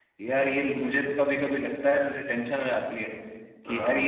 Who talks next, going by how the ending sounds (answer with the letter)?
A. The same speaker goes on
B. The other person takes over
A